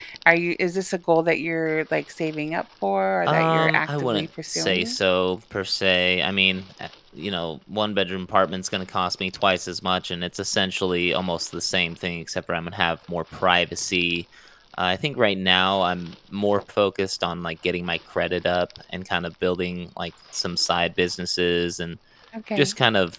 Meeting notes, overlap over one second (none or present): present